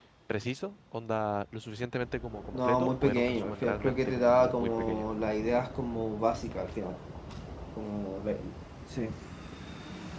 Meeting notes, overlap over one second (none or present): present